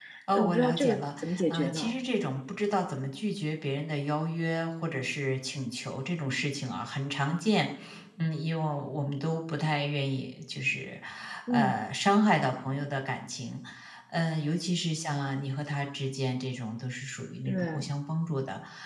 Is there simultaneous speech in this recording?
Yes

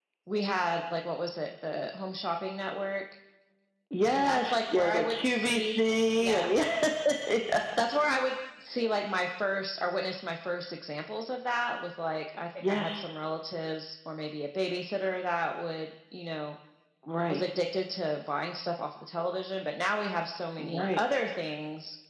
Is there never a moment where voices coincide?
No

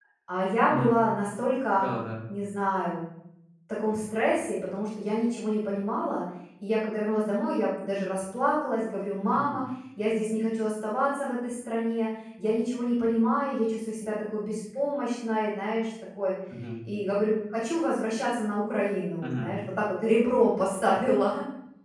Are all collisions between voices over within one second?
Yes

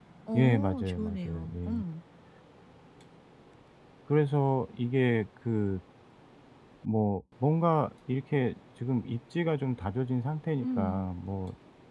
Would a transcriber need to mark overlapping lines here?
Yes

